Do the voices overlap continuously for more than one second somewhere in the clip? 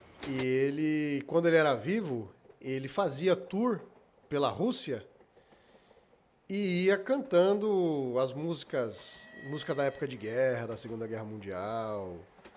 No

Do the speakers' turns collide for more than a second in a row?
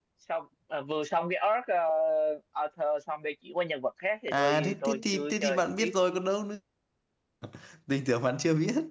Yes, from 4.3 s

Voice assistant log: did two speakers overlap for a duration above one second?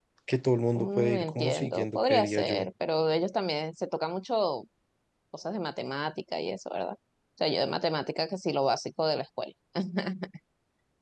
Yes, from 0.8 s

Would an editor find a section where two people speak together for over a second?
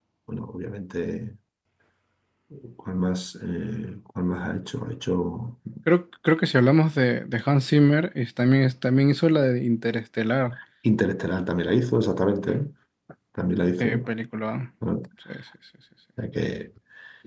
No

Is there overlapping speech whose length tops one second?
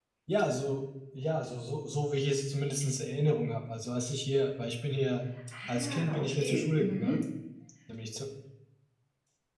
Yes, from 5.5 s

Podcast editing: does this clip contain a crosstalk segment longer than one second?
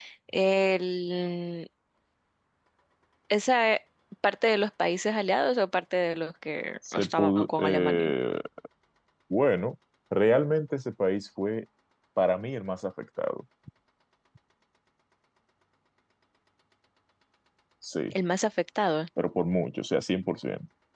Yes, from 6.8 s

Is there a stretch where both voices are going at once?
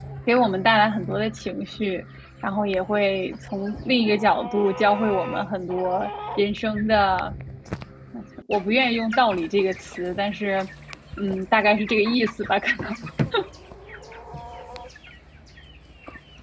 No

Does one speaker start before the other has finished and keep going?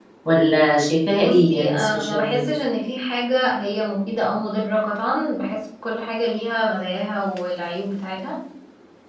Yes, from 1.2 s

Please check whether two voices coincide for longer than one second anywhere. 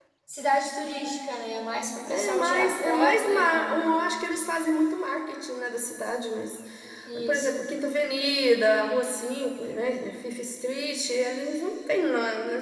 Yes, from 2.1 s

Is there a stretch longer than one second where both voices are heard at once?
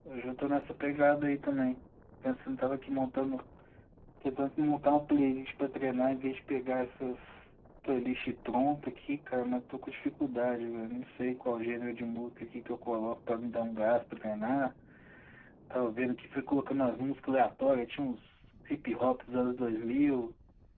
No

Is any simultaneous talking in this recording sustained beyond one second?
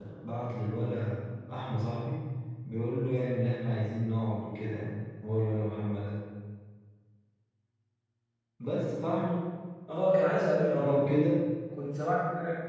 No

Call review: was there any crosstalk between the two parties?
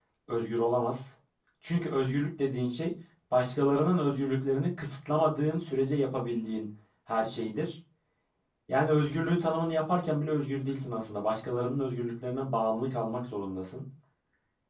No

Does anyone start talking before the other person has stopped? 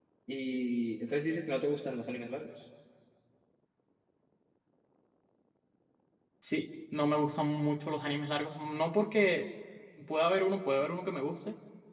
No

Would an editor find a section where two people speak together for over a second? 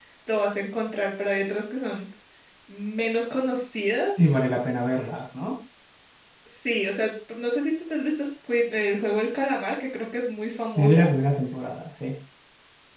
No

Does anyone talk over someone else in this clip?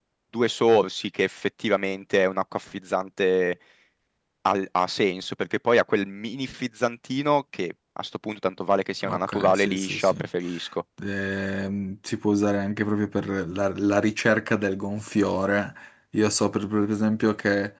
Yes, from 9.0 s

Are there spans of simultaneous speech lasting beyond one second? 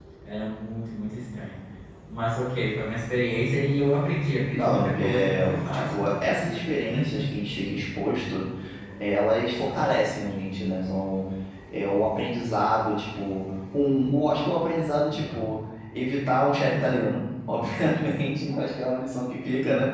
Yes, from 4.5 s

